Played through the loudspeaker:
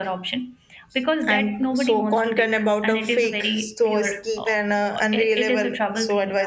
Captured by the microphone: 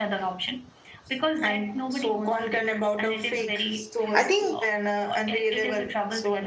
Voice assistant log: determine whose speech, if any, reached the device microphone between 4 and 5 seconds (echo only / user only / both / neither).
both